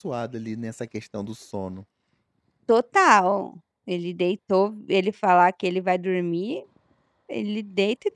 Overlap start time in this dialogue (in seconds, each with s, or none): none